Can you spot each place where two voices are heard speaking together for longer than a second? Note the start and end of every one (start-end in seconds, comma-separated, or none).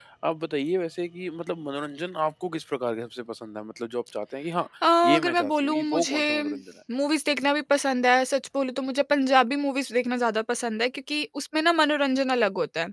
5.0-6.4